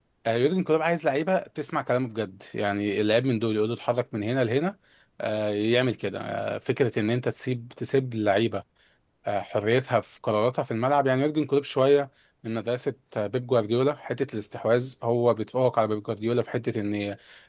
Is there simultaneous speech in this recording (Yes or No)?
No